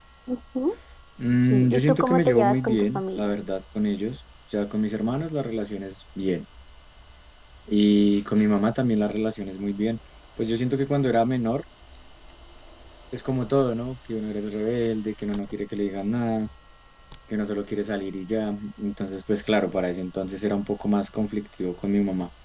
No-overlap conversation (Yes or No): No